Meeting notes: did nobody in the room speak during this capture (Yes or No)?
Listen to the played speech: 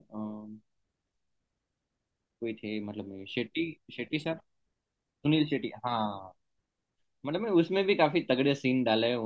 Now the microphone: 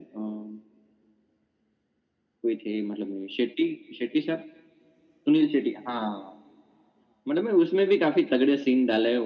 Yes